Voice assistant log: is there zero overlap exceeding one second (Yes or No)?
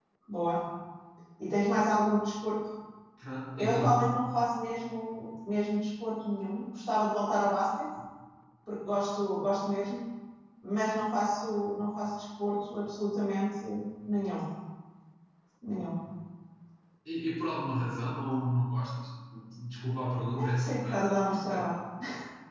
No